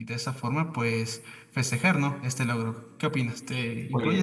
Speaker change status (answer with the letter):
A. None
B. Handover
B